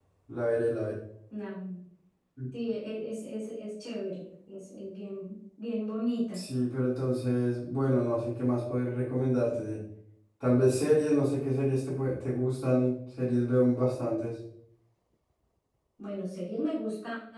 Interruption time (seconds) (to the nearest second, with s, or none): none